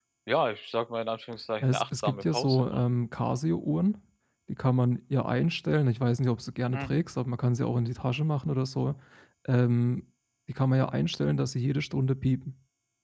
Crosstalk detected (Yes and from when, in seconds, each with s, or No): Yes, from 1.6 s